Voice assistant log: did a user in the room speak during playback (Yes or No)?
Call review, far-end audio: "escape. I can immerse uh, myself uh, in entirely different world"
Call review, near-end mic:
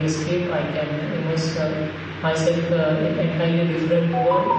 No